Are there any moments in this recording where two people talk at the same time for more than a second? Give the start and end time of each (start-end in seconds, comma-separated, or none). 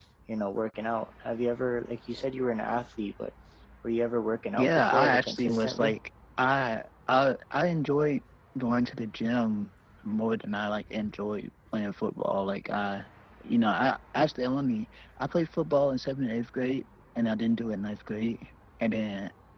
4.6-5.9